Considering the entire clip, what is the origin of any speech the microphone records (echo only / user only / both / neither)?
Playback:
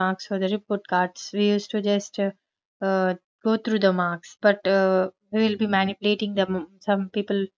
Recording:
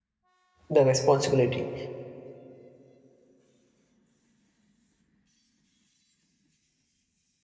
user only